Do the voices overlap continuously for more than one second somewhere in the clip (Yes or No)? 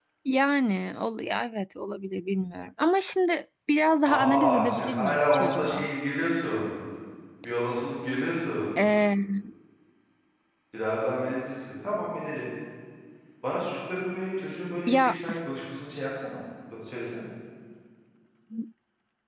Yes